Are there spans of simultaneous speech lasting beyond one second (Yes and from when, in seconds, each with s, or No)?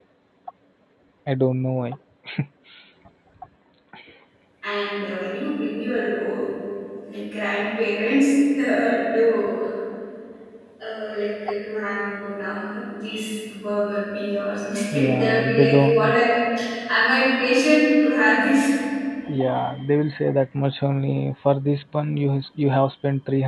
Yes, from 14.9 s